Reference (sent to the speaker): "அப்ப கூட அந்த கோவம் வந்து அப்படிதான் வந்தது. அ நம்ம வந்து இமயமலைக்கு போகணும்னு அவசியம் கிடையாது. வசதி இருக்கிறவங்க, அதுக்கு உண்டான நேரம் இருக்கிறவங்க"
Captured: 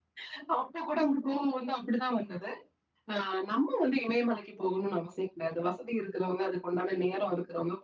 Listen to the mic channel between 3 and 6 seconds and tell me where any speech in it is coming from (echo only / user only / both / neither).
echo only